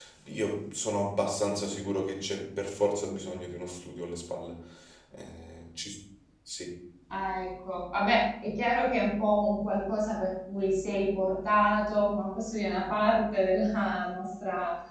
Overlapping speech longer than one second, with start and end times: none

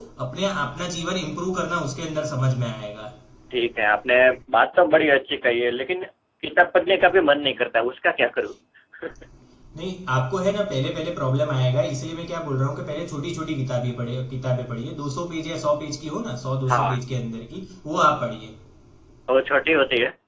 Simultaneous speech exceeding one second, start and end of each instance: none

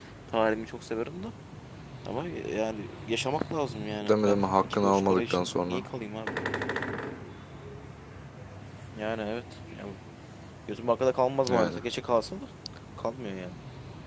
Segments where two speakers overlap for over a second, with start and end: 4.0-5.8

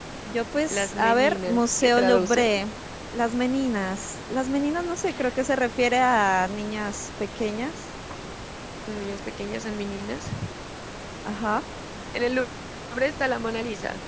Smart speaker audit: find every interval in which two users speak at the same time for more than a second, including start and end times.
0.7-2.5

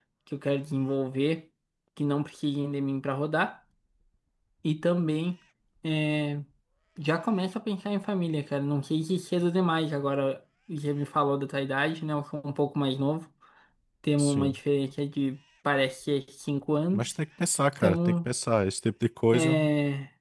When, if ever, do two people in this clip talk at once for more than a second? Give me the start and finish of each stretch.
none

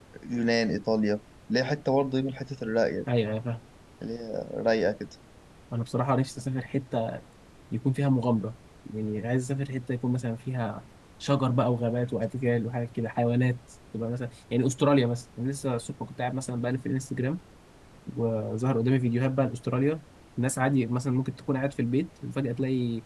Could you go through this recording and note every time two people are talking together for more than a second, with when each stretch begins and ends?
none

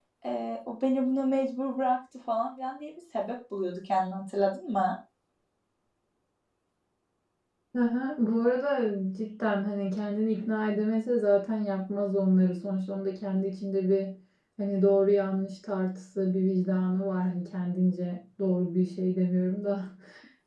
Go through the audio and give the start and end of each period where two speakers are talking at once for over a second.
none

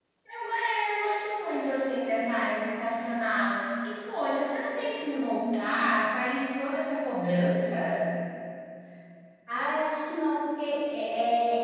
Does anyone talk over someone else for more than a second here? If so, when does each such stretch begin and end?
none

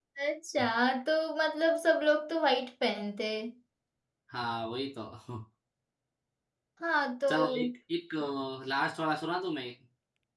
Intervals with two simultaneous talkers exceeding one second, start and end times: none

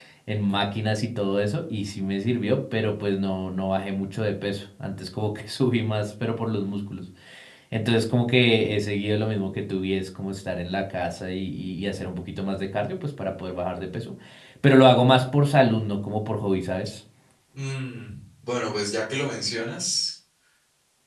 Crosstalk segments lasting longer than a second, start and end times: none

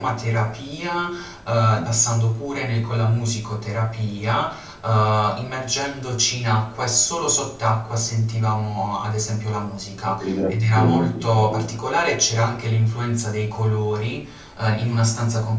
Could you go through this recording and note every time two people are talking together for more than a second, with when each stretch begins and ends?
10.2-11.7

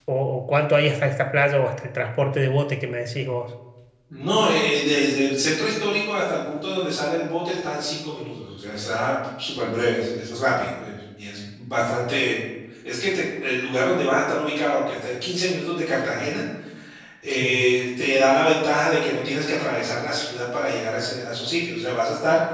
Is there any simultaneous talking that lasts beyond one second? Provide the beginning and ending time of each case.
none

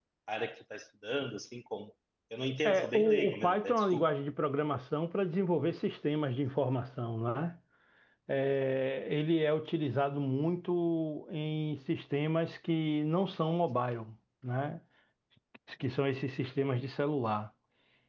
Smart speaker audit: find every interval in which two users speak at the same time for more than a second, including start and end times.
2.6-4.1

